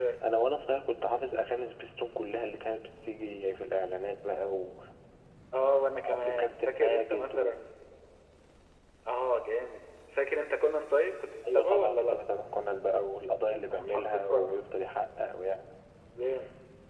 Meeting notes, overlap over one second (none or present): present